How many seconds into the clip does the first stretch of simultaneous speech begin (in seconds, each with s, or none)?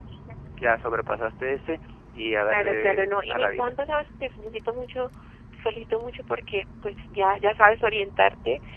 2.5 s